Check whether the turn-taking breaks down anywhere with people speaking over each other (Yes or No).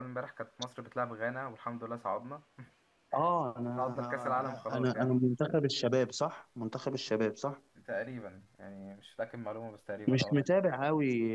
Yes